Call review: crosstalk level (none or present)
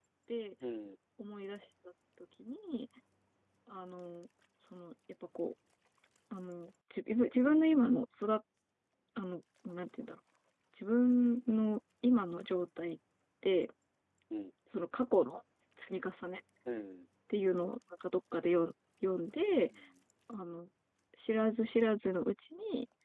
none